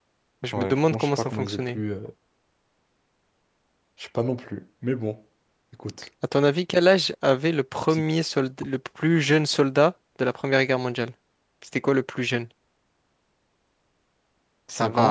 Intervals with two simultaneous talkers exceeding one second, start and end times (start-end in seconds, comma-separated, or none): 0.5-1.8